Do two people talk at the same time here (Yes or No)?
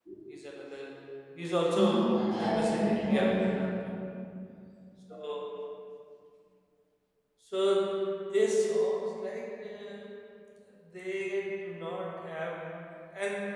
Yes